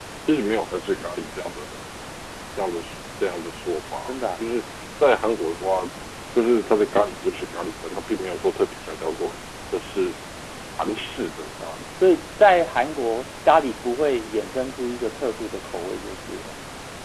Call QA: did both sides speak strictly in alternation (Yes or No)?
Yes